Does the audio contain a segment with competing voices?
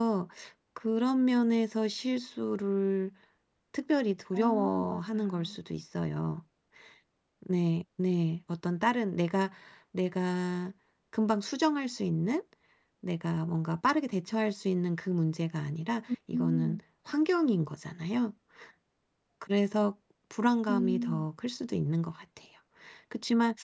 Yes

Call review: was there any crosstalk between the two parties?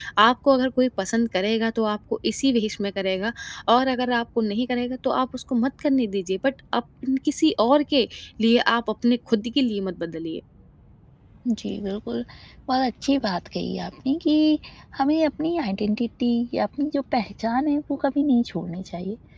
No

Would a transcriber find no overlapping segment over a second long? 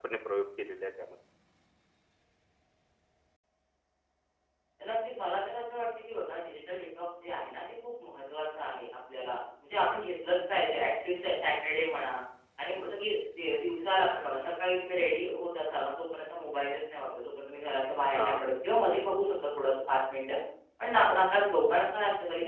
Yes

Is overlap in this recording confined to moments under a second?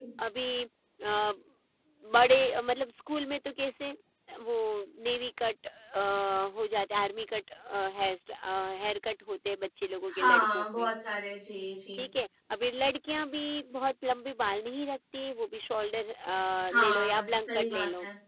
No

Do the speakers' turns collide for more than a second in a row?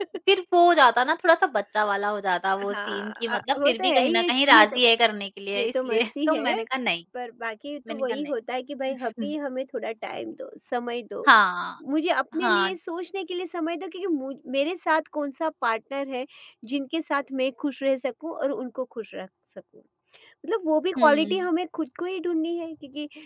Yes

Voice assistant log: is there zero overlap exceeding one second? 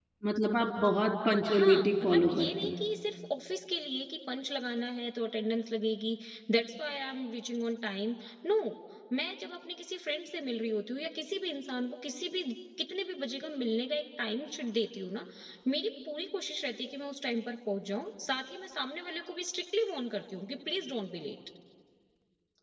No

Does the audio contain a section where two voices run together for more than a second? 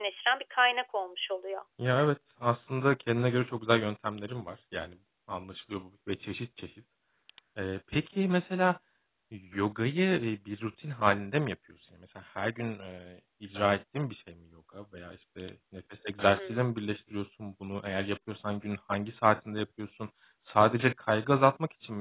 No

